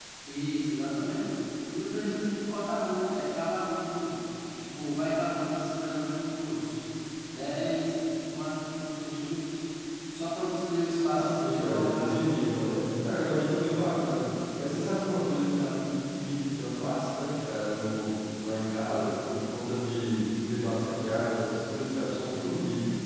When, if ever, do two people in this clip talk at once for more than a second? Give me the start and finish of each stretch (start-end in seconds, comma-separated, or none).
11.1-12.7